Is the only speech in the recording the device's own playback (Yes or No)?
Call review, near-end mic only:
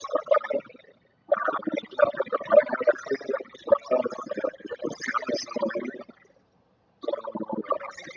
Yes